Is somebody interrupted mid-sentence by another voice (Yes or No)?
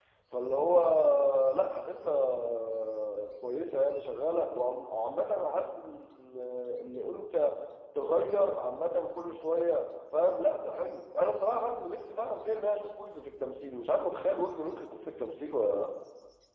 No